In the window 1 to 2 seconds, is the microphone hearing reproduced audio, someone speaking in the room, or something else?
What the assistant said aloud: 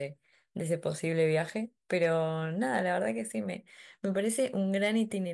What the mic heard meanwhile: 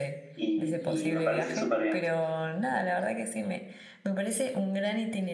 both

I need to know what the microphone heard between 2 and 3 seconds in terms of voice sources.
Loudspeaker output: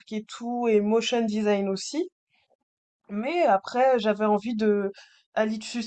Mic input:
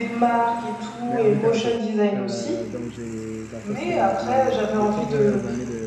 both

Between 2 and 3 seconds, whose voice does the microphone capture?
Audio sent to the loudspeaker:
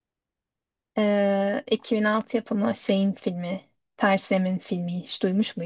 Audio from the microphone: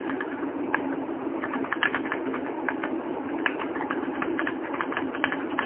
neither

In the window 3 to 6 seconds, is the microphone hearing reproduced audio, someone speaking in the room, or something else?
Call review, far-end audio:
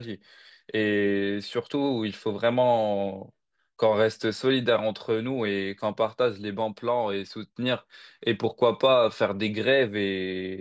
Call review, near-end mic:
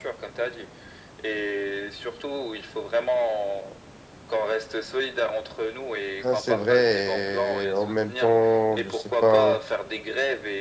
echo only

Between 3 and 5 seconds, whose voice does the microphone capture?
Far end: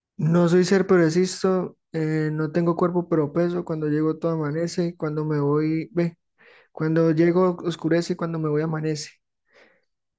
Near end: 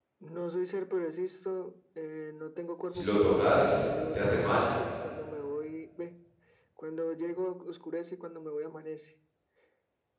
both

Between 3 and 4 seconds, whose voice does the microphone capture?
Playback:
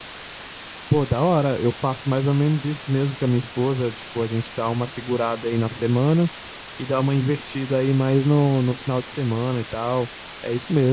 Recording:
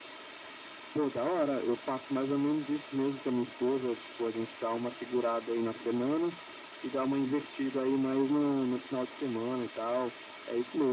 echo only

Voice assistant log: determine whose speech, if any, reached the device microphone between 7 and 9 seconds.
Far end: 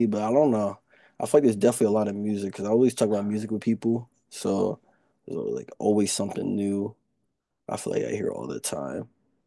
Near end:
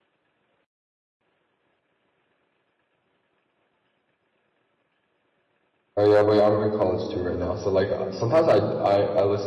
user only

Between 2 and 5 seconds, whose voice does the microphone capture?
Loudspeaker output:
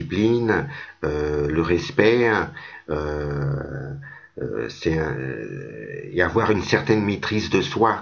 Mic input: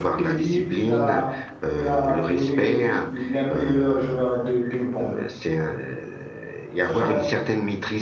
both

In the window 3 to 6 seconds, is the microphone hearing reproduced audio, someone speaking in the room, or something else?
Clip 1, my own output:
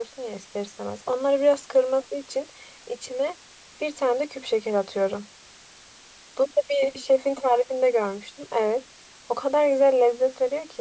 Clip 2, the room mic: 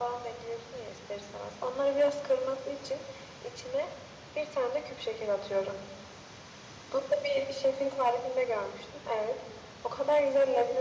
echo only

